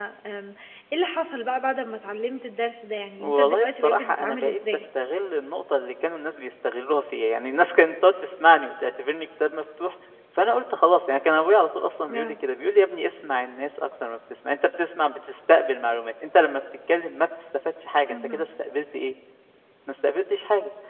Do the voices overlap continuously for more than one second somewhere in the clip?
Yes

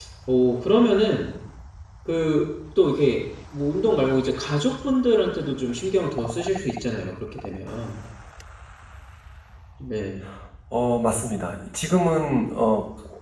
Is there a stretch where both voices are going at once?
No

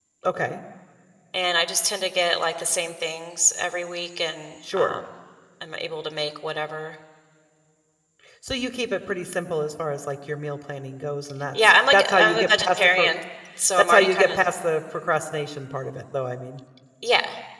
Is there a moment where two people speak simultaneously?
Yes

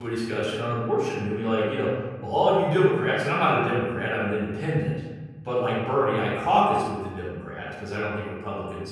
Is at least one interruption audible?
No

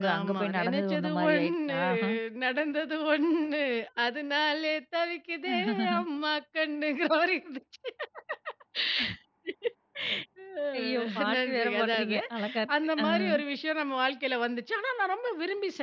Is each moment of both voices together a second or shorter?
No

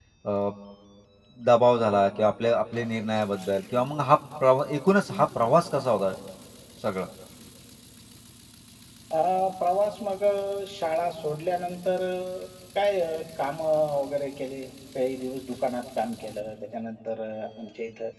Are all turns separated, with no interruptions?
Yes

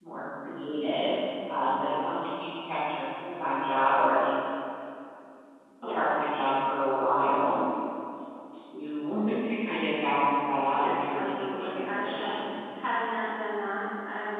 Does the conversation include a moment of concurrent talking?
Yes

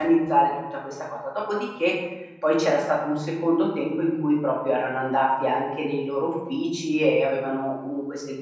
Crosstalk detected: No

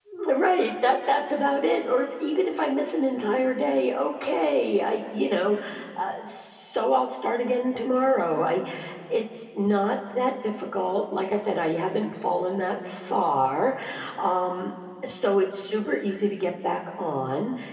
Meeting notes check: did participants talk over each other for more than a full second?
No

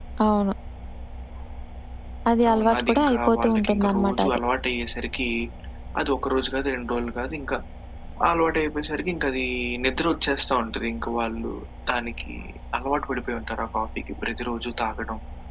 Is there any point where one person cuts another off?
Yes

